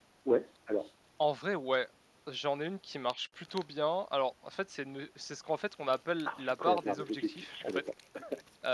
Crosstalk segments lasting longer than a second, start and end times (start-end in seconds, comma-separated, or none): 6.3-7.9